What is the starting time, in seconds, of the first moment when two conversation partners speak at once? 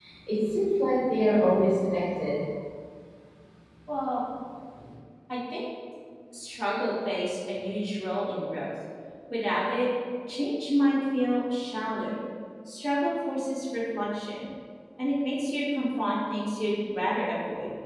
none

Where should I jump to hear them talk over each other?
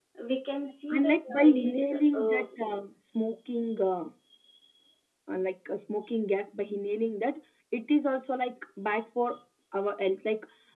0.9 s

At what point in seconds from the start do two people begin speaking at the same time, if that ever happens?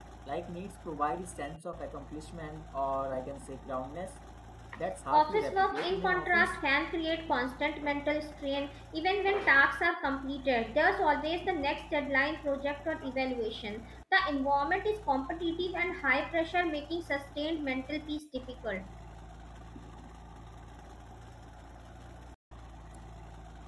5.1 s

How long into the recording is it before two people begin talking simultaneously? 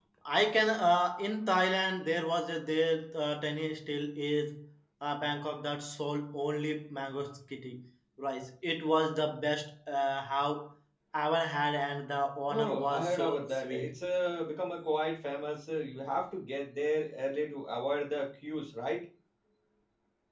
12.5 s

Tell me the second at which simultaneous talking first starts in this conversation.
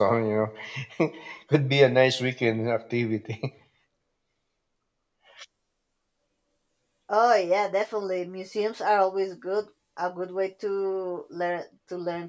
none

